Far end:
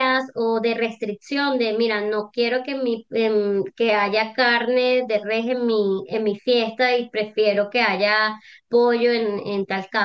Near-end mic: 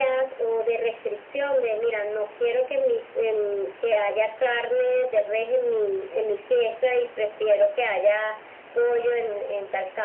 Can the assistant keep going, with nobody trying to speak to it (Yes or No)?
Yes